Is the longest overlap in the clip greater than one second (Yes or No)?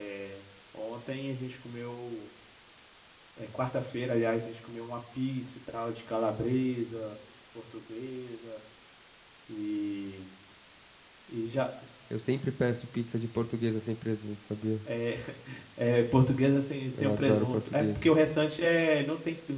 Yes